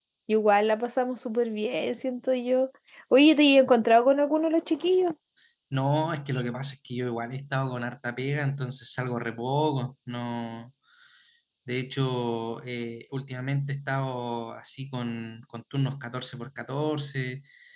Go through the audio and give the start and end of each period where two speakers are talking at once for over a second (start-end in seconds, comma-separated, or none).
none